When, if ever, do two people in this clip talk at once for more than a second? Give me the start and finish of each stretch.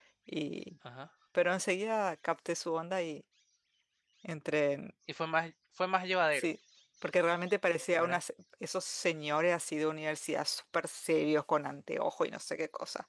none

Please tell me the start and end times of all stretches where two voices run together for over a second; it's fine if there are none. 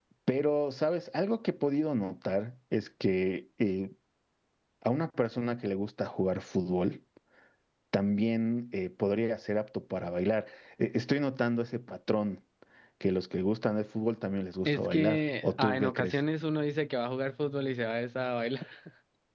14.7-16.2

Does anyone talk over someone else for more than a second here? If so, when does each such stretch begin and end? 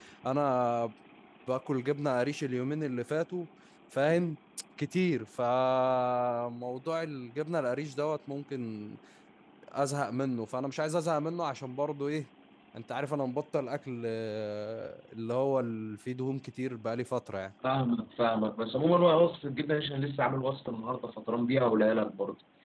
none

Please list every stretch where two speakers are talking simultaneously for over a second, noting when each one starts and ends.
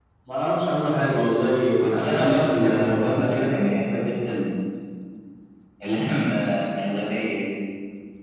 1.8-3.1

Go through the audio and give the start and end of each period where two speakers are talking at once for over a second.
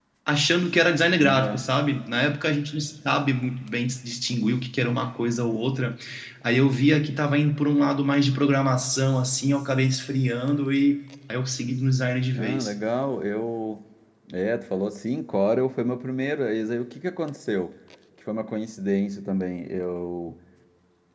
none

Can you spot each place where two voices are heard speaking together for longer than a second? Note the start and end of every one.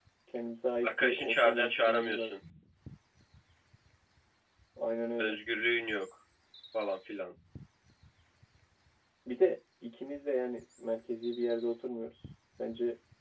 0.8-2.4

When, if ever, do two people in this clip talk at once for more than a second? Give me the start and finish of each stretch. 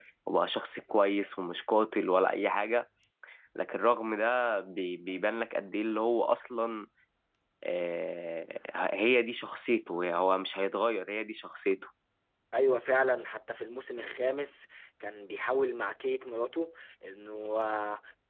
none

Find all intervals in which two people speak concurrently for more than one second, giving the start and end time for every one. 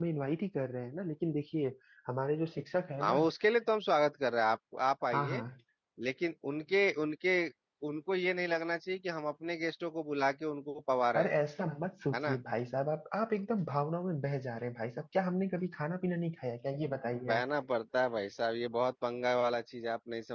none

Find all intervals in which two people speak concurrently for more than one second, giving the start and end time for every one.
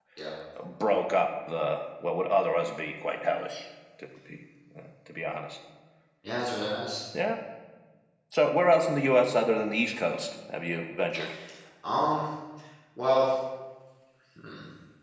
none

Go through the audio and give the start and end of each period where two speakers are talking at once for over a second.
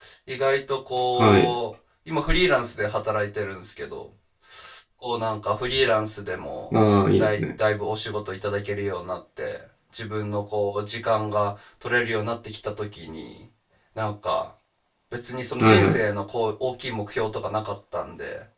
none

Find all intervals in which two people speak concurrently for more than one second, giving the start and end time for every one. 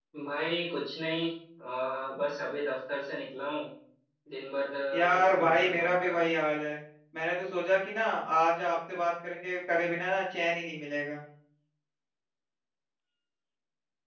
4.9-6.2

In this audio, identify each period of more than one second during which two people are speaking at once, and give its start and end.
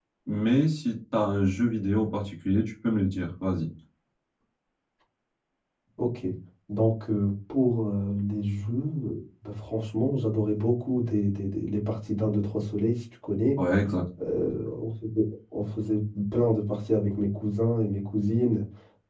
none

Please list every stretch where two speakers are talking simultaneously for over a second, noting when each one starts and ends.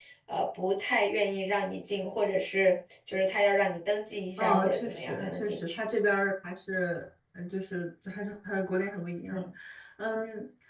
4.4-5.8

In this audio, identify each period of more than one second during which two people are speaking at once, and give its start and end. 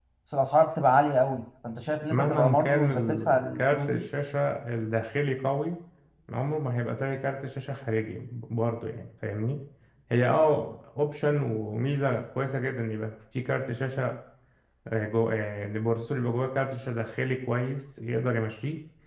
2.1-4.0

